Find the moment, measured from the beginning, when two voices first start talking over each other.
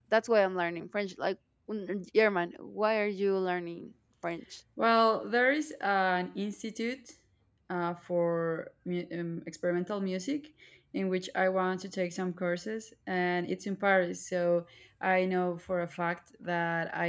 none

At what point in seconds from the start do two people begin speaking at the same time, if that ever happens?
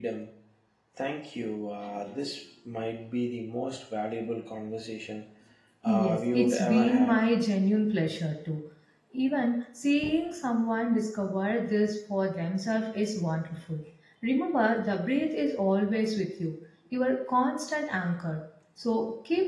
6 s

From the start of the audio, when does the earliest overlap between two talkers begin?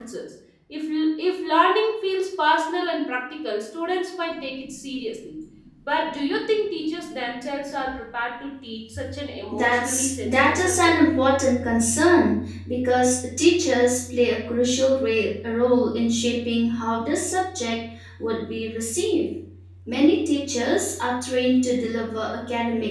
10 s

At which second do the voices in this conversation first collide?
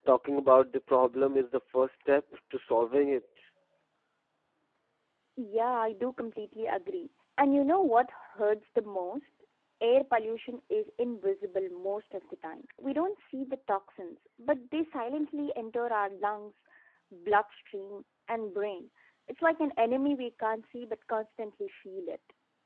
none

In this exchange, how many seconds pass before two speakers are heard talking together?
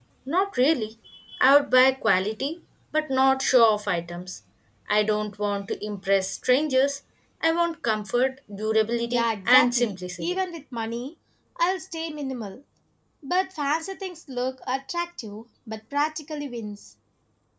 9 s

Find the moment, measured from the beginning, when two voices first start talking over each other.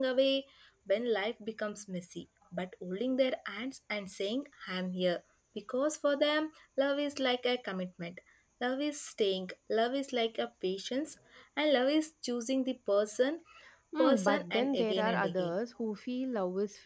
14 s

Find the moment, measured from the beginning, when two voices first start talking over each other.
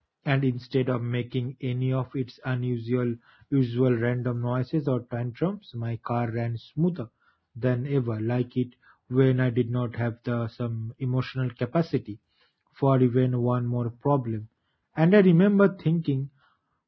none

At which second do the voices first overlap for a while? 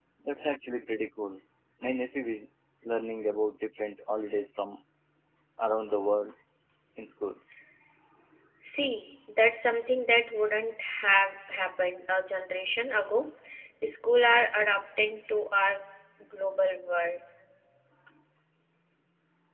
none

